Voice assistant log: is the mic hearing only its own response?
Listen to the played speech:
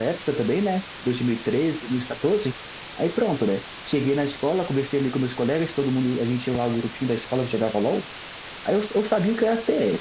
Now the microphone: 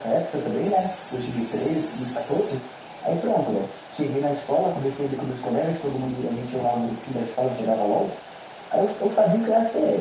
Yes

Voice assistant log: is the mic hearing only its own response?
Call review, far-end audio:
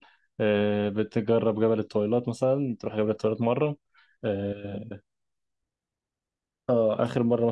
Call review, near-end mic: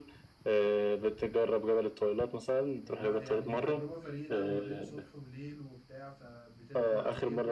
No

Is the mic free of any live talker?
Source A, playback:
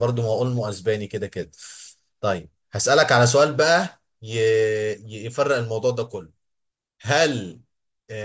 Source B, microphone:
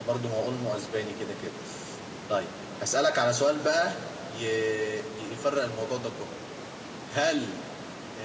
Yes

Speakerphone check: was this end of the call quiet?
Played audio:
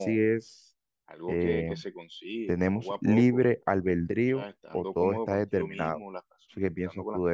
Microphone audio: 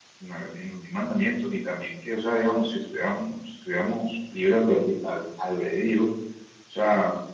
No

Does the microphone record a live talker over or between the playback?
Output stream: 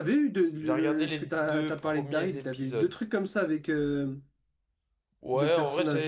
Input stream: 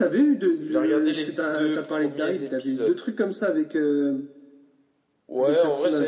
No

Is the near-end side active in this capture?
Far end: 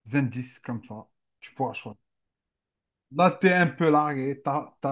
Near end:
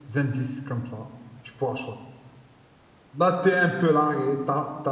No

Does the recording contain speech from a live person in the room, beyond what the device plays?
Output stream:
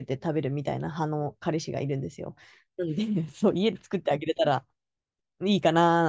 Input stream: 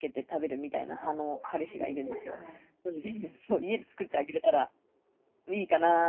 Yes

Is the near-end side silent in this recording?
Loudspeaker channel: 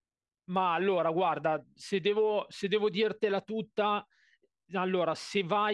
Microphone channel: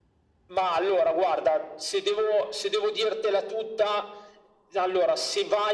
Yes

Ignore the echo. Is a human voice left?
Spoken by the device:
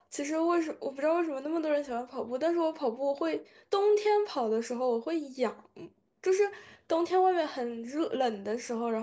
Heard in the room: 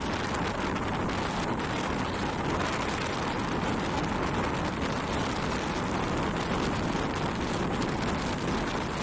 No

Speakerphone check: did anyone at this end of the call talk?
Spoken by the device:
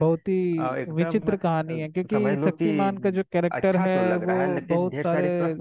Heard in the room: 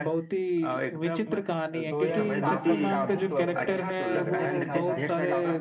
Yes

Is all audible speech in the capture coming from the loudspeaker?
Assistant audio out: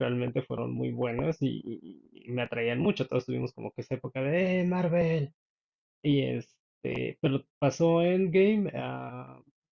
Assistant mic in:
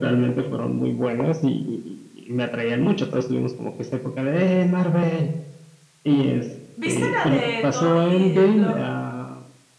No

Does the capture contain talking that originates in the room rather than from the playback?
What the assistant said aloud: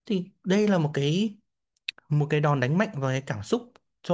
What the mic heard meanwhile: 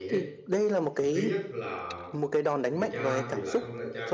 Yes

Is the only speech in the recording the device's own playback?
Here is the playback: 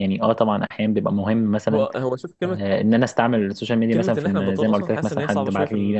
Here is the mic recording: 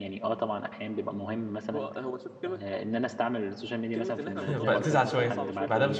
No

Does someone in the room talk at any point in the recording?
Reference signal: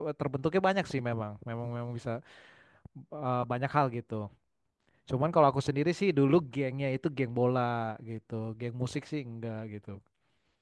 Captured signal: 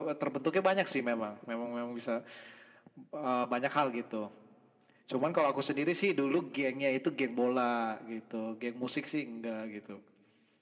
No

